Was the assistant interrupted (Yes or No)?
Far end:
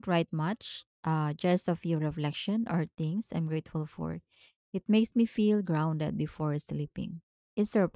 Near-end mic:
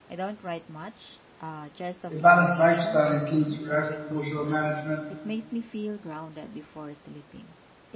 Yes